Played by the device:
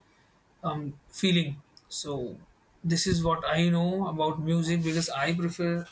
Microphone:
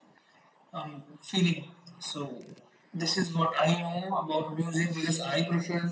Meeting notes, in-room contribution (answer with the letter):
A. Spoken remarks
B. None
B